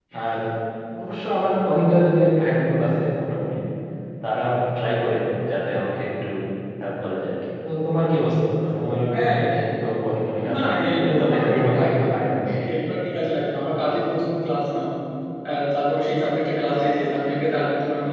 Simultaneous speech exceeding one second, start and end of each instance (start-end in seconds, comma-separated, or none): 10.5-12.1